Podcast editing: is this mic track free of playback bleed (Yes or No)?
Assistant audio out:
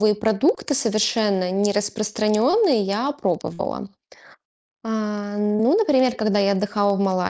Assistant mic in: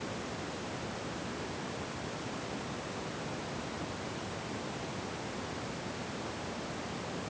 Yes